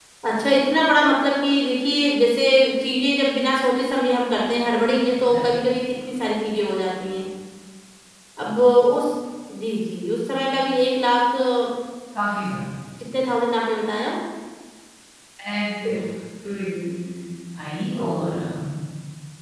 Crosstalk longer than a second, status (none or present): none